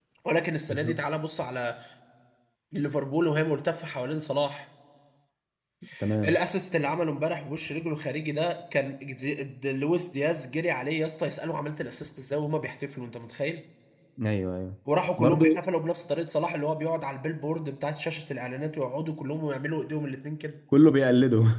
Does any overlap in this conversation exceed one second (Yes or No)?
No